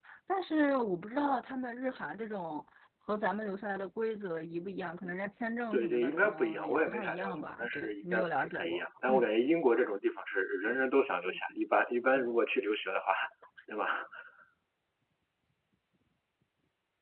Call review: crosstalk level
present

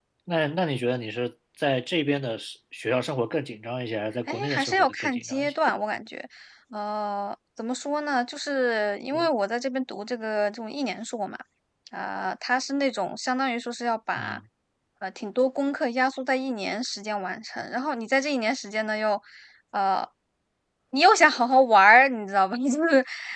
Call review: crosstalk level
present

